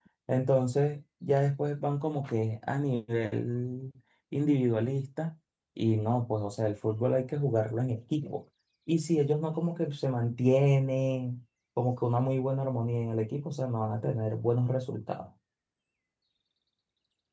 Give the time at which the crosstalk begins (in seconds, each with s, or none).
none